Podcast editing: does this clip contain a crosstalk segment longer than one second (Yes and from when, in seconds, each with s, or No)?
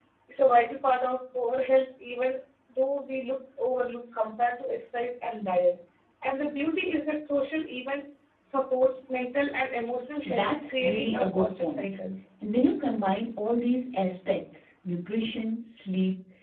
Yes, from 10.2 s